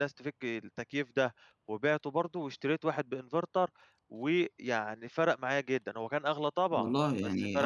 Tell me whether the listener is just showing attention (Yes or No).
No